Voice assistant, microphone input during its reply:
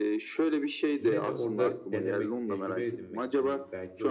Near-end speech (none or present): present